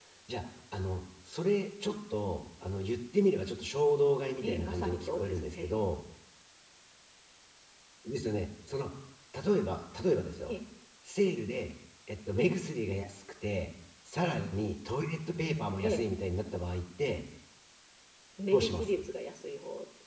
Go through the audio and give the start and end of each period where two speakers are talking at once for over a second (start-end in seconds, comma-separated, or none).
4.4-5.7